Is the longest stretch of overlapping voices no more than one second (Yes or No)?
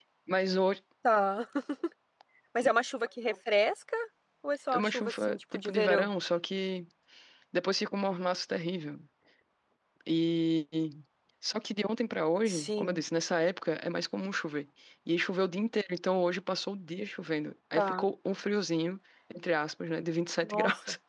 No